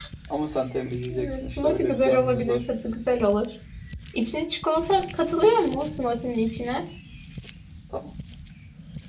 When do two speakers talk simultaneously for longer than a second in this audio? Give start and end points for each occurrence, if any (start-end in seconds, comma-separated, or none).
1.1-2.6